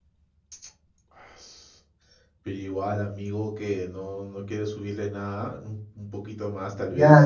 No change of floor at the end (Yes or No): No